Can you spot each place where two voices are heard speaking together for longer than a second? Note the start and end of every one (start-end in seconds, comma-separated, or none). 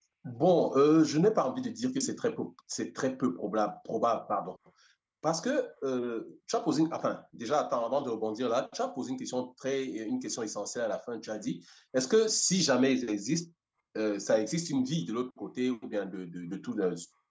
none